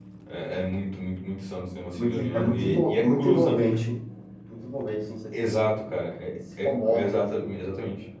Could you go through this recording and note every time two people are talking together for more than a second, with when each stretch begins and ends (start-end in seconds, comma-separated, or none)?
2.0-3.7